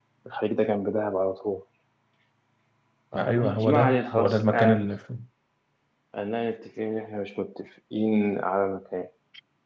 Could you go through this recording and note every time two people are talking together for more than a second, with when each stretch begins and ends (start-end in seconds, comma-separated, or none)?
3.1-4.9